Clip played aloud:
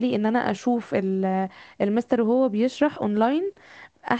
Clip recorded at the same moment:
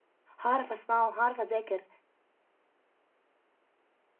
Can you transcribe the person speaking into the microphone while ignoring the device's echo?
هعرف اسمعه هعرف اذاكر

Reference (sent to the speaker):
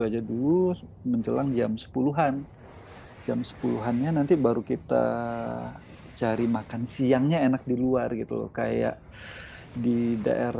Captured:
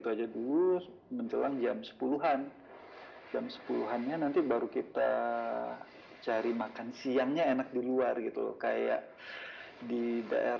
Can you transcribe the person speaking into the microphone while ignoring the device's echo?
none

